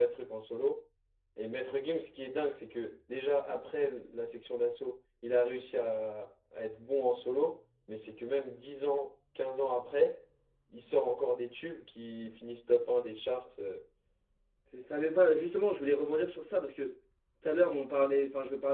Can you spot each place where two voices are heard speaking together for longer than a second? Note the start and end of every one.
none

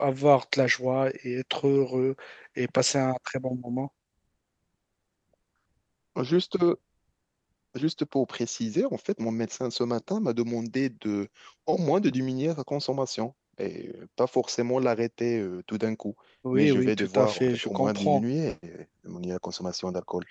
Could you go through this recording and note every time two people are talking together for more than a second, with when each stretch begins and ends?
16.5-18.2

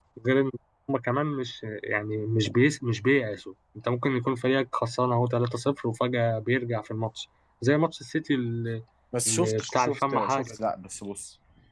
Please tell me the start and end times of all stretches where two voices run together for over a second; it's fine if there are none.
9.3-10.6

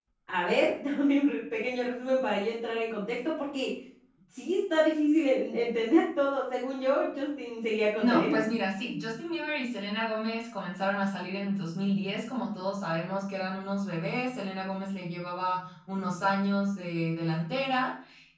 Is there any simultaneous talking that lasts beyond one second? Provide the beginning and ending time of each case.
none

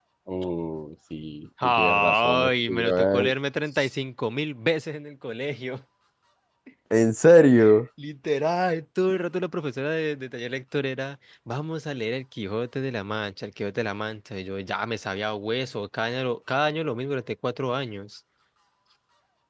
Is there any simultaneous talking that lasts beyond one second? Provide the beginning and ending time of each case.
1.6-3.3

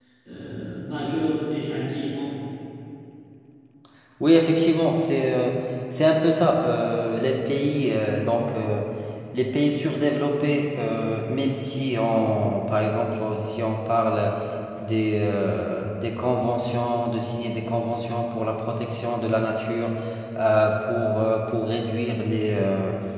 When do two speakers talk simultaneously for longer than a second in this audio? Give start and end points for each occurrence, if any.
none

